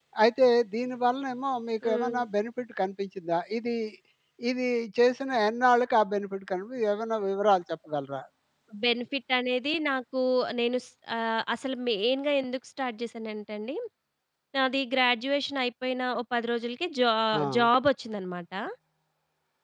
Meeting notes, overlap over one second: none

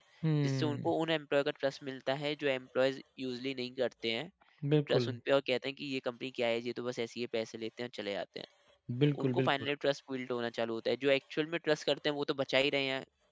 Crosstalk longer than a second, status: none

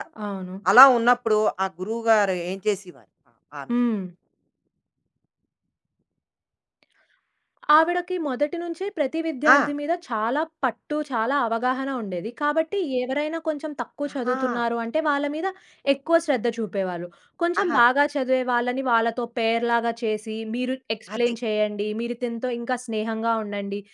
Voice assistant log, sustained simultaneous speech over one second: none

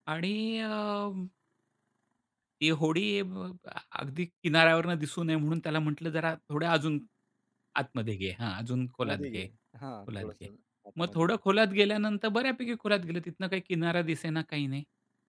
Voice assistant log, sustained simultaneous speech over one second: none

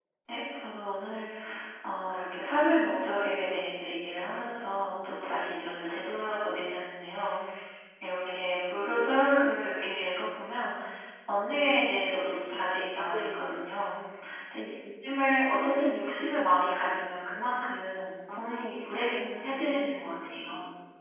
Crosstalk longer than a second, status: present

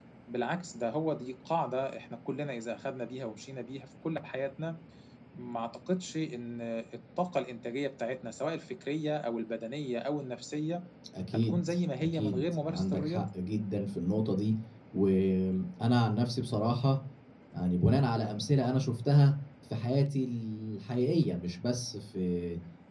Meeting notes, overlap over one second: present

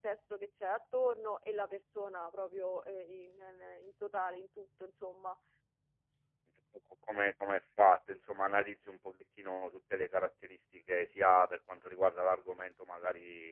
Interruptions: none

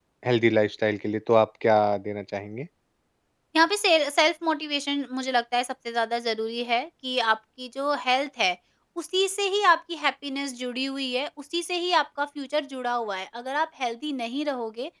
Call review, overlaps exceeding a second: none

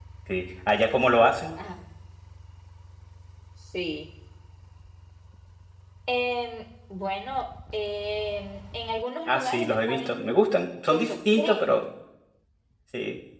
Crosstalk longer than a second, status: present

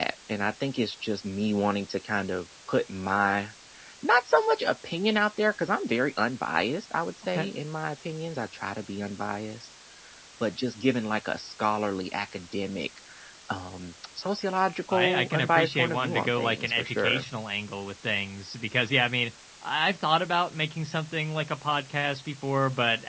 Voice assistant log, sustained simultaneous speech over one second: present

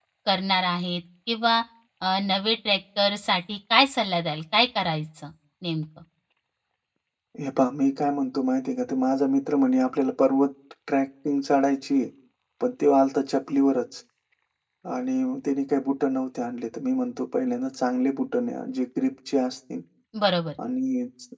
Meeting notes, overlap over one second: none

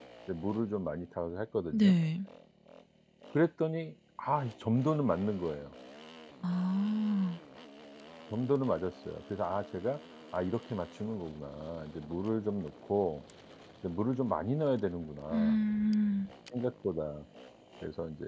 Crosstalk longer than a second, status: none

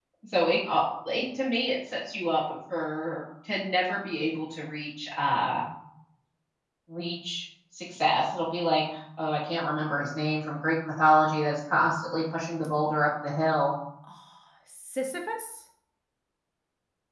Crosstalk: none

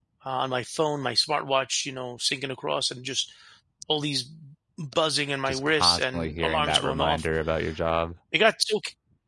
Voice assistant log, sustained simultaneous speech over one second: present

